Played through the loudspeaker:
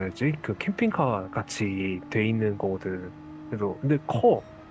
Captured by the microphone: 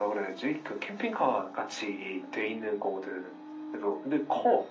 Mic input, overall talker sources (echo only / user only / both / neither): echo only